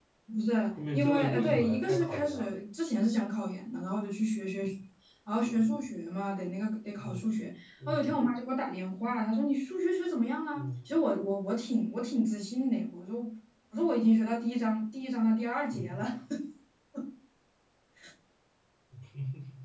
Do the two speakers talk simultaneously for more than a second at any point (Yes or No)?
Yes